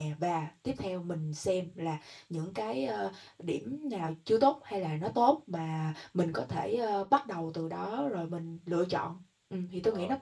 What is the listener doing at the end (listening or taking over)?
taking over